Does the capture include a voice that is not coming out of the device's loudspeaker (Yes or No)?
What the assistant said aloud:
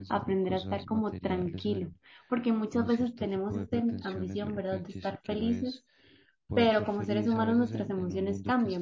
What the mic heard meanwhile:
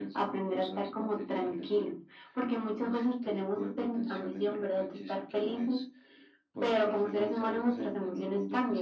No